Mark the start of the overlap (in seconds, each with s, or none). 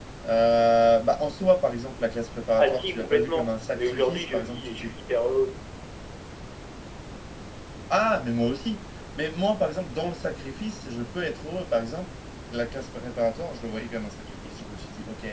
2.6 s